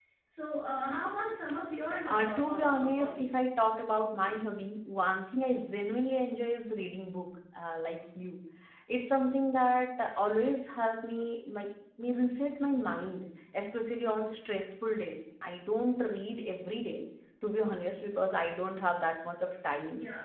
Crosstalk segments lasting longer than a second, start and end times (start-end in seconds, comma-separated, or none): 2.1-3.4